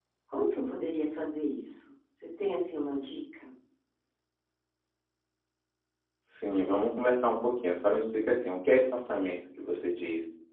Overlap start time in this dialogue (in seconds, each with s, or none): none